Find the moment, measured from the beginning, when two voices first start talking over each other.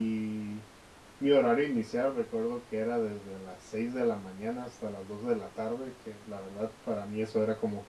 none

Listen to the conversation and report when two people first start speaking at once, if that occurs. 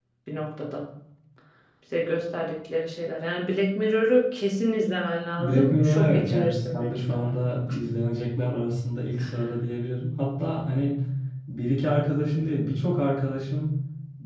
5.4 s

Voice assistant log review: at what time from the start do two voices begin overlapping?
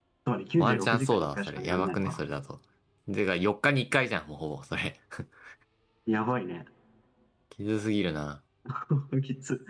0.6 s

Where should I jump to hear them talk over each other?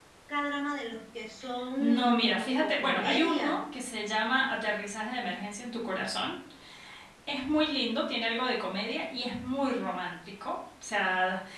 1.8 s

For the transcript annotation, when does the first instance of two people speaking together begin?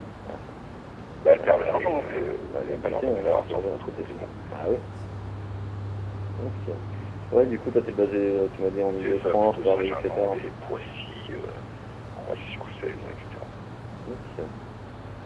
1.4 s

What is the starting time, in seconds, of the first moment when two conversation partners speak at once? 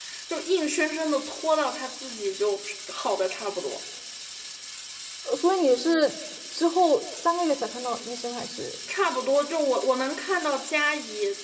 none

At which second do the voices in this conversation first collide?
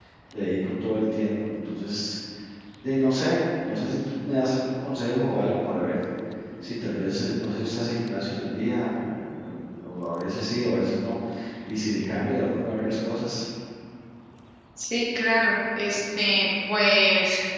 none

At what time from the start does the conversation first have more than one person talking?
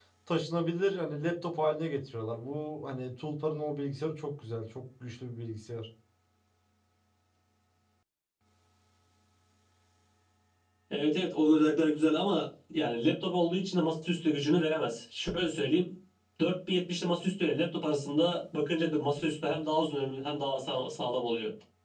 none

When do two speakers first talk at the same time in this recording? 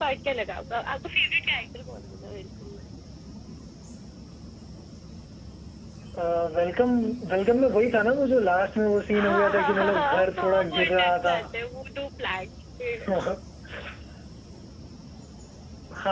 9.1 s

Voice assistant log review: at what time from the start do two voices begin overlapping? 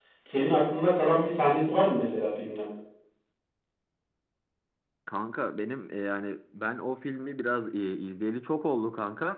none

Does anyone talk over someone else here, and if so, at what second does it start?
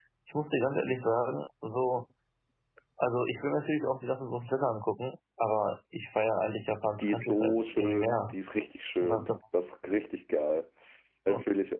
7.0 s

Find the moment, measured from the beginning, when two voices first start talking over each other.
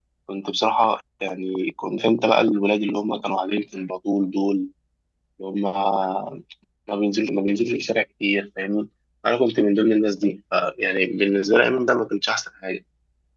none

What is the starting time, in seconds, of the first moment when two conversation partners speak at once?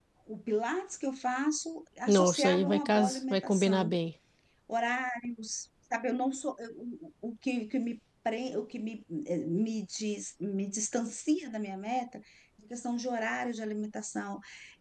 2.1 s

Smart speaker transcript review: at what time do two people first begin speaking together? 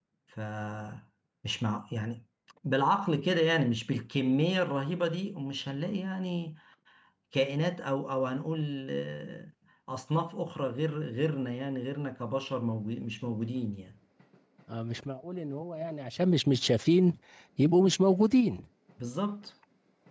none

